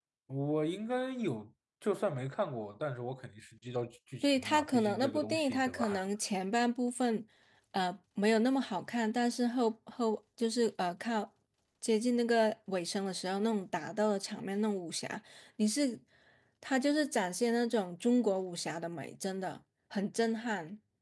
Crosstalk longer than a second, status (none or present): present